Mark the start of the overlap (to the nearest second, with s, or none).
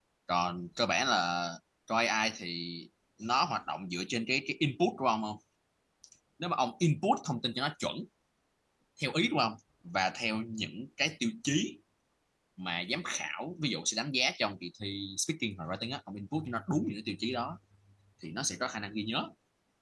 none